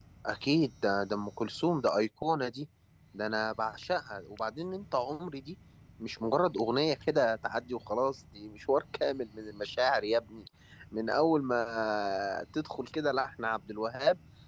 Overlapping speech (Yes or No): No